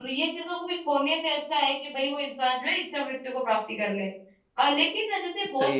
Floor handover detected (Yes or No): No